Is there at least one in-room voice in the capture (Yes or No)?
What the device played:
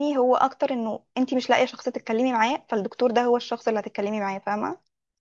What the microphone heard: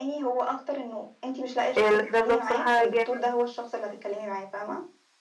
Yes